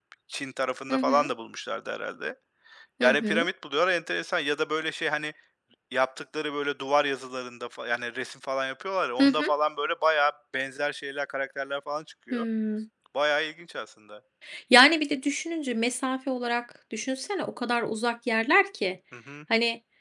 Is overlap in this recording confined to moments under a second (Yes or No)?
Yes